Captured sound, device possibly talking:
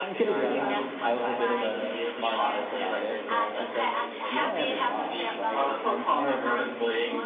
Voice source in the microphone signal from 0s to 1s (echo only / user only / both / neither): both